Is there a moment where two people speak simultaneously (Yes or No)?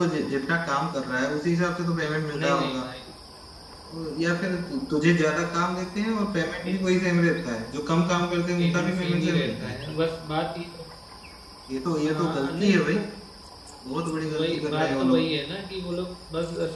Yes